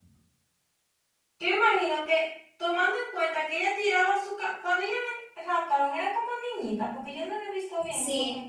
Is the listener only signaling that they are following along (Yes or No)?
No